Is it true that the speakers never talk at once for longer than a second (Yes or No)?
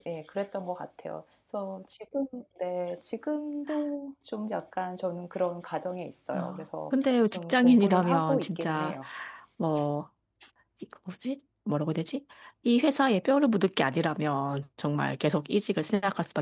No